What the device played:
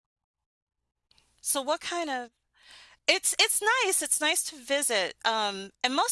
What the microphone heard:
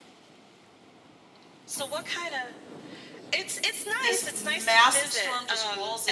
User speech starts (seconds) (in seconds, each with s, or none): 4.0 s